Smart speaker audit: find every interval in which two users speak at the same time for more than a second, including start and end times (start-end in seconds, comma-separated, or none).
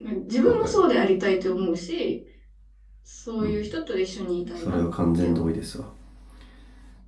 none